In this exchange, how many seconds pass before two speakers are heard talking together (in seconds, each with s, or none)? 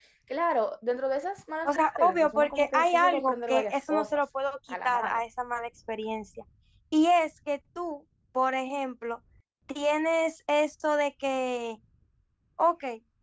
1.6 s